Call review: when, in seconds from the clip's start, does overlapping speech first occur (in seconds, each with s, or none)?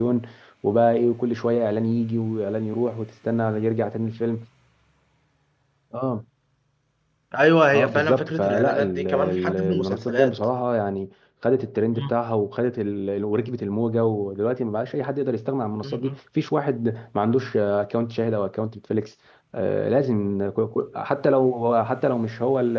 7.7 s